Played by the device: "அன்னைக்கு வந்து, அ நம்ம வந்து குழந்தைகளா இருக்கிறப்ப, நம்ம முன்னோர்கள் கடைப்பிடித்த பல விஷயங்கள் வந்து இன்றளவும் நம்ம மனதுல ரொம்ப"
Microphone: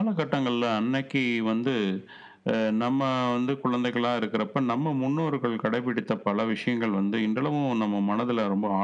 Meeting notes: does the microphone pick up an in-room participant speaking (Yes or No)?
No